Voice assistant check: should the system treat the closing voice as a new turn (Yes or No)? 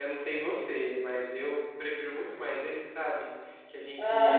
No